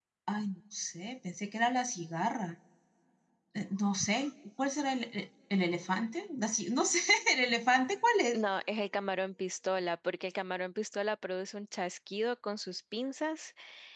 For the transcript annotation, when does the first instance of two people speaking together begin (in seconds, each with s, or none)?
none